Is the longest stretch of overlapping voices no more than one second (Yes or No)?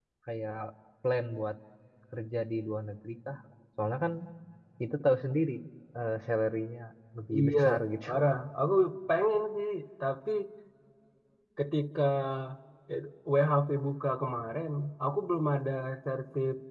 Yes